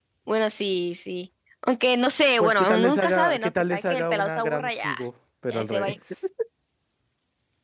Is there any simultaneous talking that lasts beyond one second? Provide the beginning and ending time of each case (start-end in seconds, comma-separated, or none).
2.4-4.9